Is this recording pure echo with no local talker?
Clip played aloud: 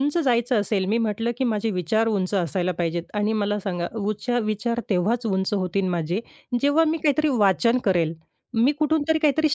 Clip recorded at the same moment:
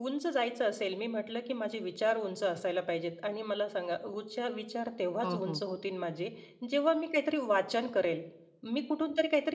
No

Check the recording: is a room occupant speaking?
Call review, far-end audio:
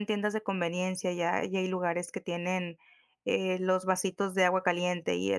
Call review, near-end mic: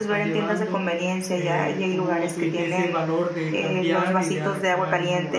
Yes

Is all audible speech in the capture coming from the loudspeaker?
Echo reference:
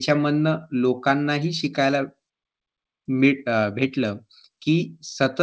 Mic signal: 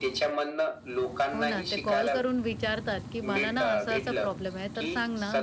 No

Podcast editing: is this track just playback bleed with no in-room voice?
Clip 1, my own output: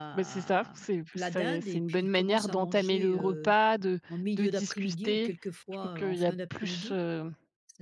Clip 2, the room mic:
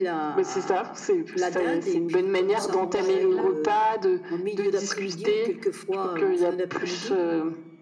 No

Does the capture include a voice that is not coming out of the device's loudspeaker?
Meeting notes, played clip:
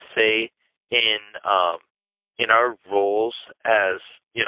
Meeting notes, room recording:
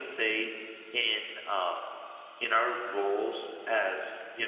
No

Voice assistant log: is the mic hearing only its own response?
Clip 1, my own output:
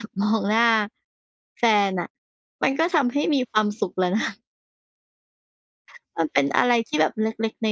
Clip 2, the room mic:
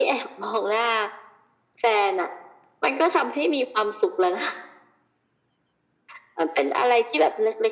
Yes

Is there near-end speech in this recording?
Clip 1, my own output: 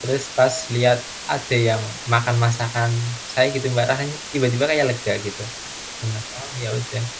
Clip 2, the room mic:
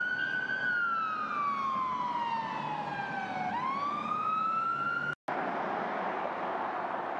No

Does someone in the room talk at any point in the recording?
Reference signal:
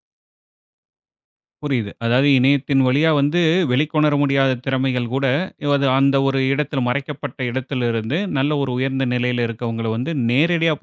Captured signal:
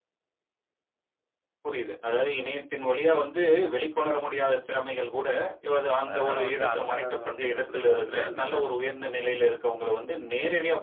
Yes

